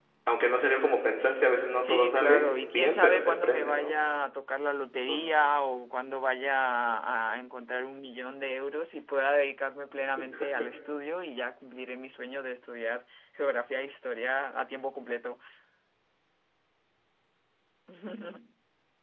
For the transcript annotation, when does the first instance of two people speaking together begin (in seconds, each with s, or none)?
1.8 s